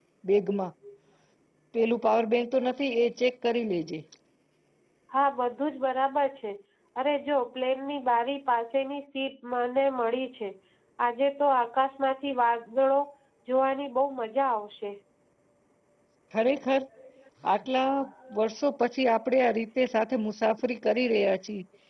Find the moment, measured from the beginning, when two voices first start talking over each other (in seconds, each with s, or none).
none